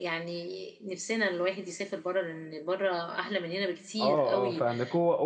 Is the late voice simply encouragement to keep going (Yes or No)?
No